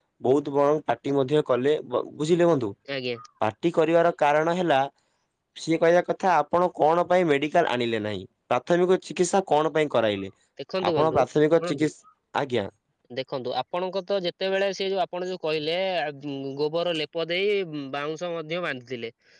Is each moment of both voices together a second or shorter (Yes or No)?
Yes